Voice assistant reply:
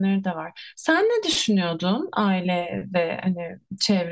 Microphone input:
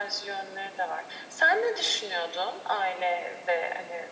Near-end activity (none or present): none